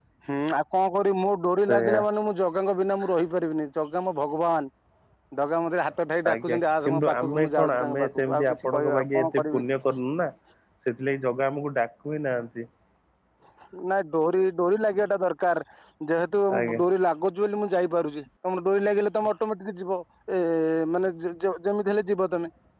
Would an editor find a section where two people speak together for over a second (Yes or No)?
Yes